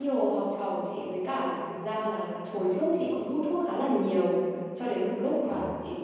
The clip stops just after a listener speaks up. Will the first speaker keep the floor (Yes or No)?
Yes